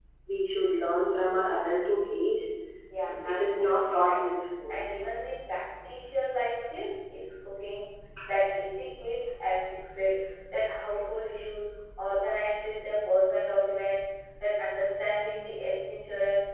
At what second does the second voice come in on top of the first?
3 s

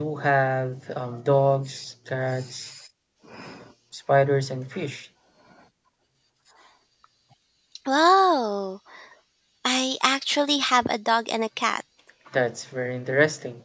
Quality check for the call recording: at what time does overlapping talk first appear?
none

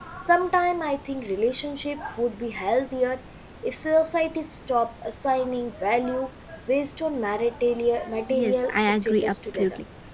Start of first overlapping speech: 8 s

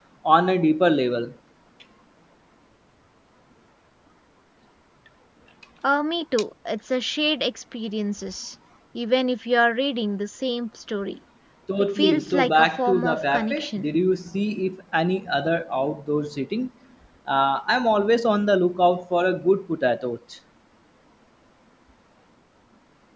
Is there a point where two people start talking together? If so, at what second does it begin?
12 s

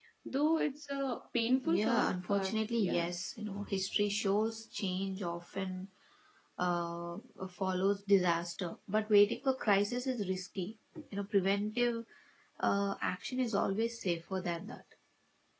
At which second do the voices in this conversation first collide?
2 s

